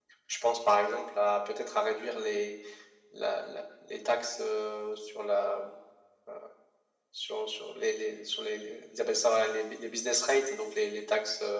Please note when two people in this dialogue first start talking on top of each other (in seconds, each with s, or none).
none